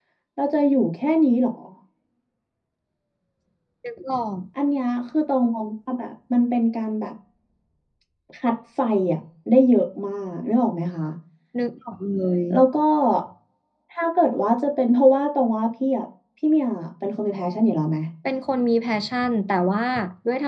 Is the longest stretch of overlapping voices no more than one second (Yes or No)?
Yes